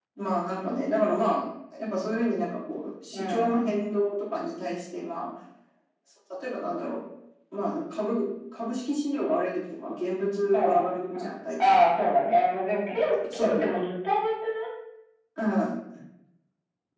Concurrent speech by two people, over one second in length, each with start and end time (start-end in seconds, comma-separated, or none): none